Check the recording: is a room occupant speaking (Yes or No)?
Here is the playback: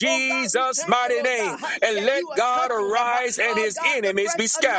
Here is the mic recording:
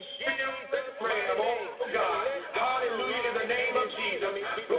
Yes